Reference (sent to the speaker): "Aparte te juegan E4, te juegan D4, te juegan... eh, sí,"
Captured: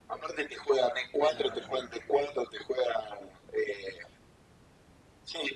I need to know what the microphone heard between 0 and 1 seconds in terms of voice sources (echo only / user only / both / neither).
echo only